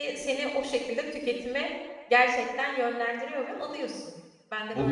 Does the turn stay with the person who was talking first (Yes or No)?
No